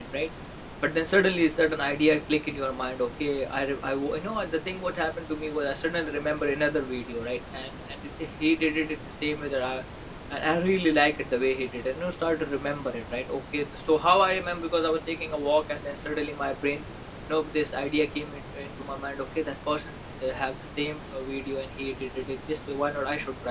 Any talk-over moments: No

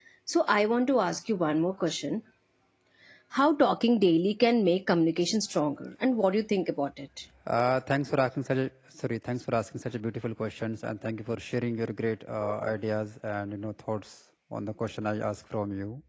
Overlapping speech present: No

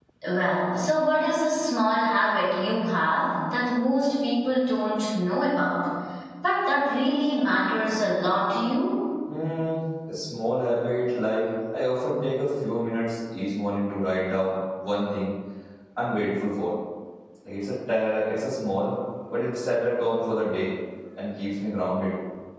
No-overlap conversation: Yes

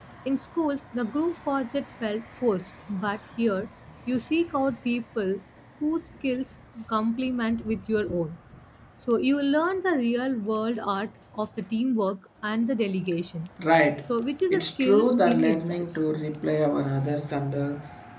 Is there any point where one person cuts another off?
Yes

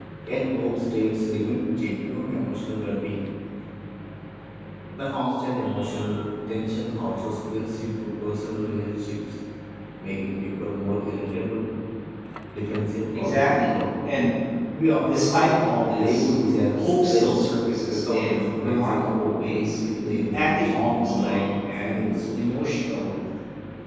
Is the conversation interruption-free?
No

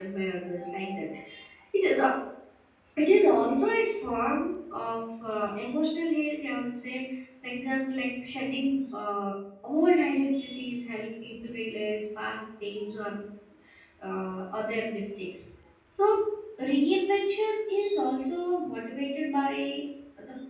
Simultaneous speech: No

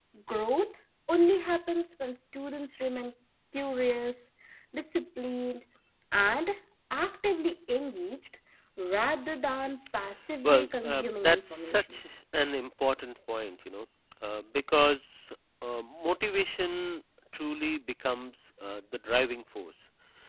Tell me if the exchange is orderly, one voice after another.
No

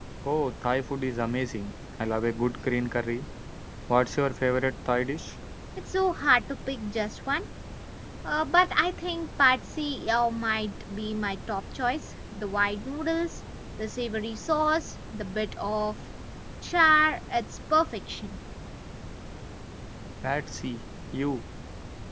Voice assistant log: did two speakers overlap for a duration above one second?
No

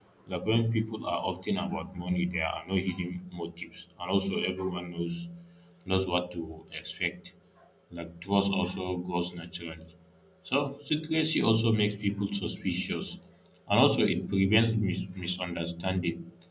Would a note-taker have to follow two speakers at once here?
No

